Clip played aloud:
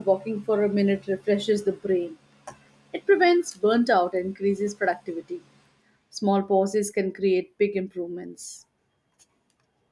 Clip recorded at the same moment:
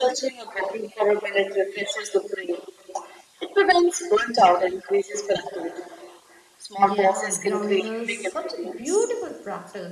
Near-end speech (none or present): present